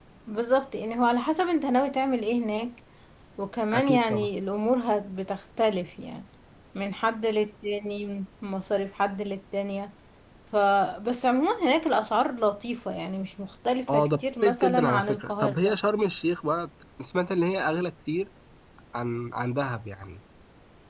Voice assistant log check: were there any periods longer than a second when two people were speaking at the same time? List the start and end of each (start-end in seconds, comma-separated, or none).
13.9-15.8